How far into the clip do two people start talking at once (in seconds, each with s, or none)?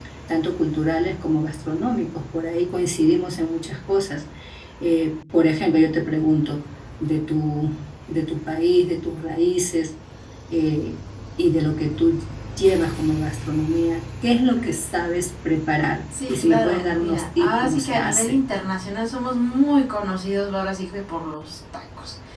16.1 s